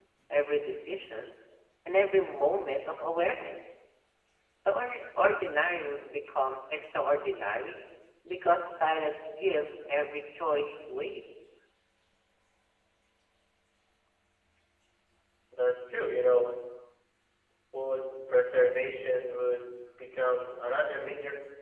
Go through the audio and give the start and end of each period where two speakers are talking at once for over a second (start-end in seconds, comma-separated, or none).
none